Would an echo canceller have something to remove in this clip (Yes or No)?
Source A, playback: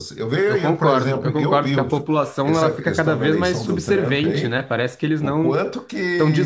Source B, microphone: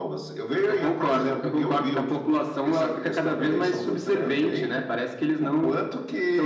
Yes